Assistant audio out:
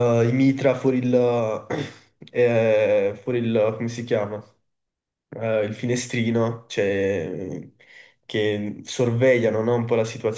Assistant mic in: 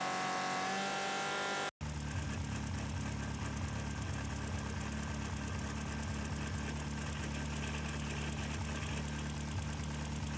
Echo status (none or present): none